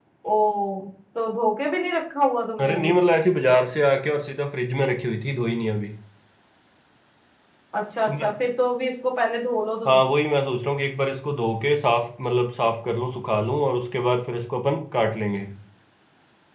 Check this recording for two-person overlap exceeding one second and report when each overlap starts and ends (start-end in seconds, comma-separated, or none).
none